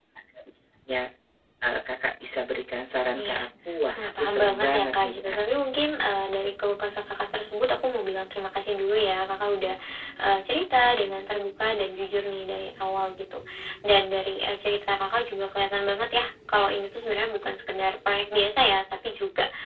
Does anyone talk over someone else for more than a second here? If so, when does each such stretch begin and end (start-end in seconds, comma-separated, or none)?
4.0-5.4